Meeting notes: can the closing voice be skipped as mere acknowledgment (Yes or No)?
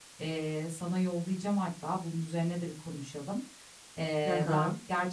Yes